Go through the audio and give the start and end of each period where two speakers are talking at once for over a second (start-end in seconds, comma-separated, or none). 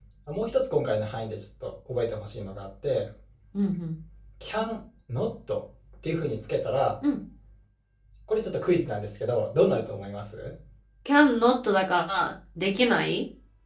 none